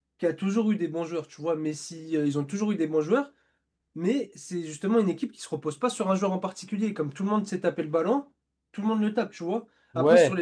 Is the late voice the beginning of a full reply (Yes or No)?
No